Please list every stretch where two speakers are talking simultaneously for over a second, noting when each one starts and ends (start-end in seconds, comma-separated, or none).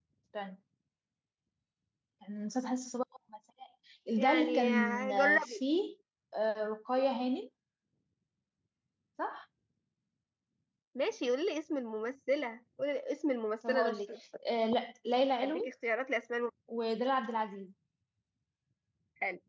4.2-5.6